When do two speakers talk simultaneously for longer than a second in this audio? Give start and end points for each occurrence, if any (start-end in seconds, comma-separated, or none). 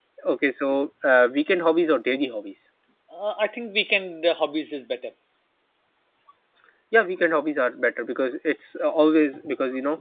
none